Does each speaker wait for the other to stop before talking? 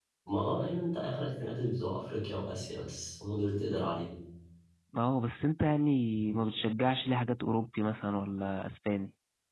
Yes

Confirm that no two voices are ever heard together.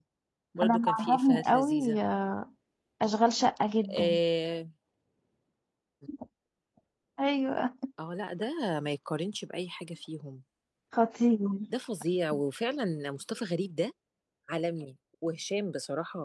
No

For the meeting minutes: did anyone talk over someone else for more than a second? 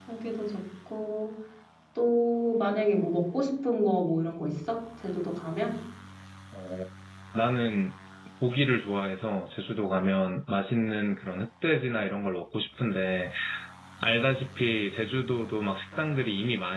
No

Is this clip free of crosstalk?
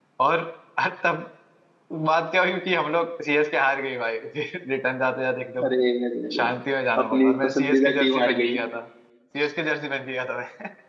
No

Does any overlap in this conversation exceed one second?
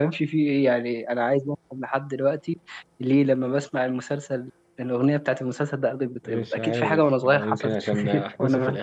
Yes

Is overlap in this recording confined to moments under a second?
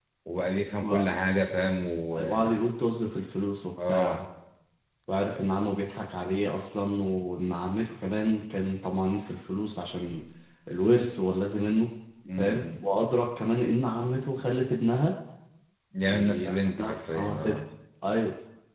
No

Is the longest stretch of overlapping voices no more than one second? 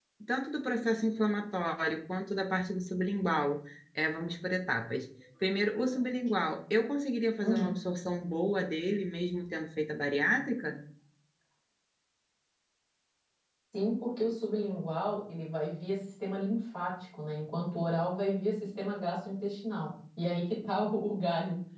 Yes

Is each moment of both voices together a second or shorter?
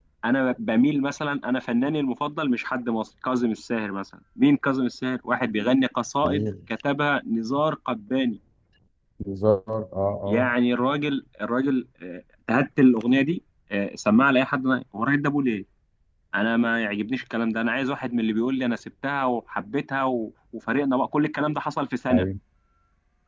Yes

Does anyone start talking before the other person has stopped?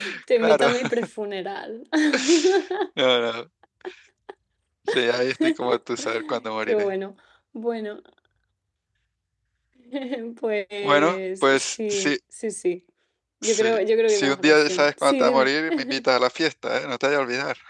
Yes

